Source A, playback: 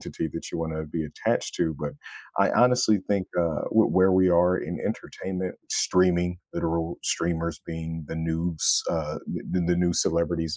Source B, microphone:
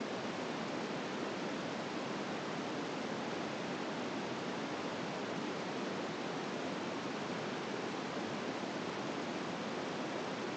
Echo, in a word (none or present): none